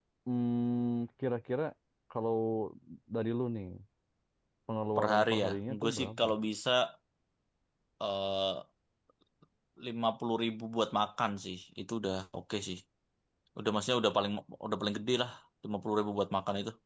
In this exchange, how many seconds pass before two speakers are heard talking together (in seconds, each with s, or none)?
5.0 s